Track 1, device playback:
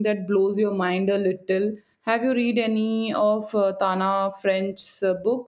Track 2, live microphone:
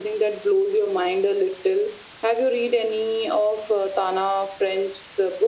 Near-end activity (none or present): none